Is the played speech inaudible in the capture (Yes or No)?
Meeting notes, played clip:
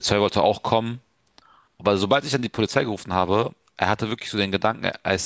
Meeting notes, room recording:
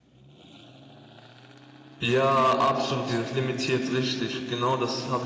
Yes